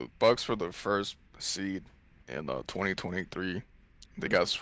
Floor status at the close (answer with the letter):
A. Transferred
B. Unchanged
B